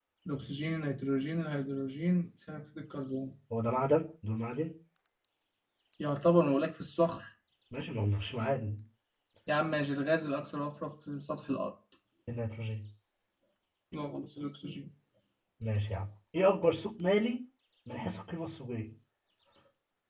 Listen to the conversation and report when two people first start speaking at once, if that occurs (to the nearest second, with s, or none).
none